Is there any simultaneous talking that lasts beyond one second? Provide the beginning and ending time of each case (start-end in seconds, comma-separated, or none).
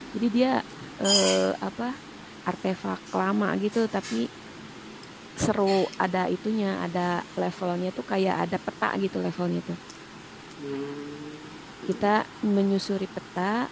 none